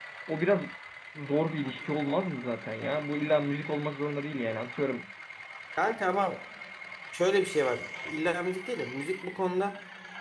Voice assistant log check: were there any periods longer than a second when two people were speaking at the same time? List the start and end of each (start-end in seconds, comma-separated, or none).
none